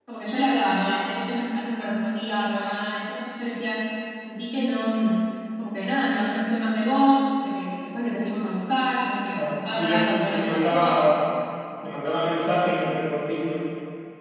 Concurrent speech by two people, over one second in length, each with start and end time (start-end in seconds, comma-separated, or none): 9.3-11.0